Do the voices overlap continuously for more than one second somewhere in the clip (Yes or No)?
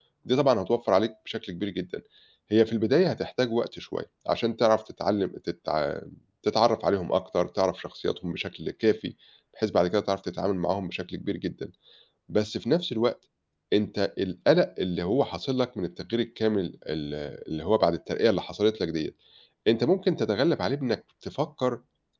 No